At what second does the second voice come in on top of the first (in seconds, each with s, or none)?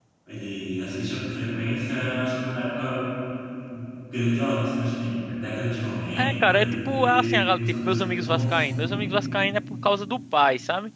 6.2 s